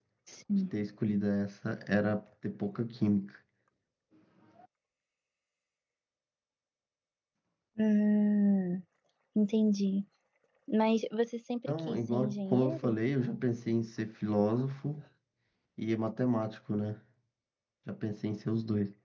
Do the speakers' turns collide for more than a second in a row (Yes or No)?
Yes